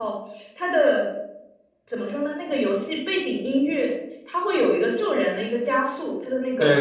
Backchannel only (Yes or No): No